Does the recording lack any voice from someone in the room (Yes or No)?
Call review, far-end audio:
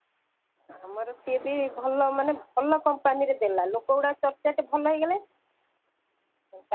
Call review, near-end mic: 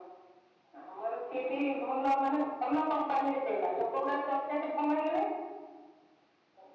Yes